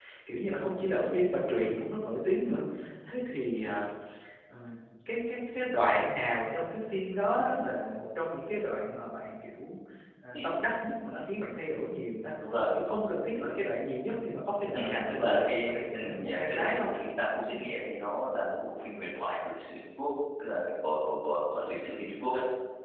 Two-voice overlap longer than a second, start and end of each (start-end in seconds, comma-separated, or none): 14.8-16.9